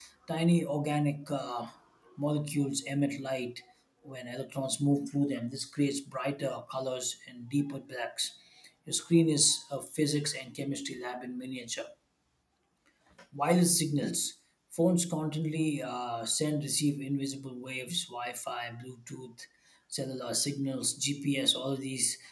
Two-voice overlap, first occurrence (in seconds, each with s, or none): none